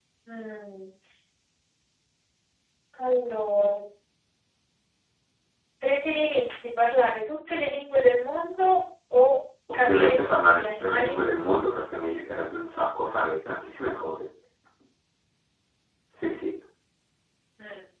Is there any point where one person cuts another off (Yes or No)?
Yes